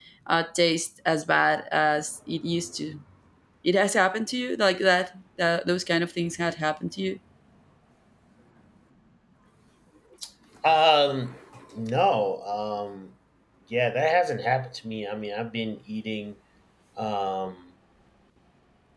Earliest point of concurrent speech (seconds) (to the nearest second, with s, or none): none